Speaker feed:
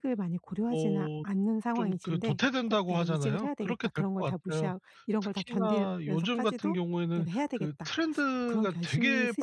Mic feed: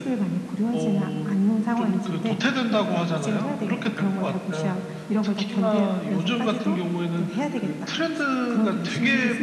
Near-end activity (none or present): none